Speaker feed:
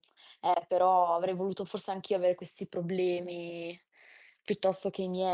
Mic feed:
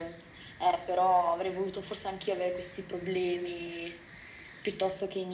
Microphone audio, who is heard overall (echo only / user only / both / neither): echo only